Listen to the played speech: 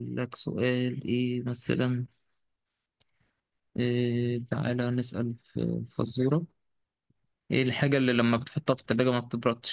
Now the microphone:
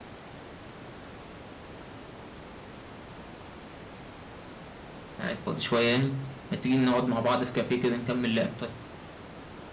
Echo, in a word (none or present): none